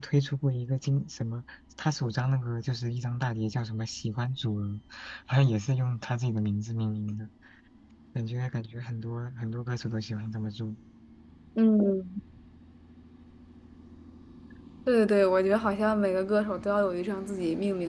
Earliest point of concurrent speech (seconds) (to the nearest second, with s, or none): none